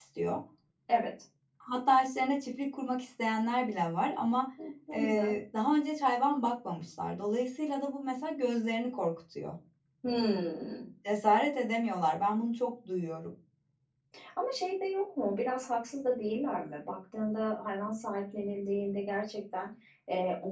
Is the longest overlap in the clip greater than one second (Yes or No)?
No